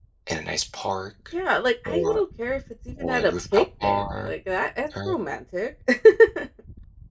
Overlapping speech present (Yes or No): Yes